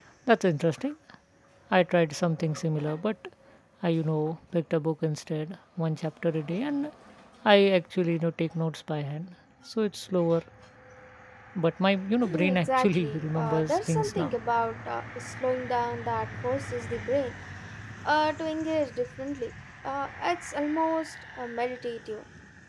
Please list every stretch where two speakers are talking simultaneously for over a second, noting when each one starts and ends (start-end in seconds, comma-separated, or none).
12.2-14.4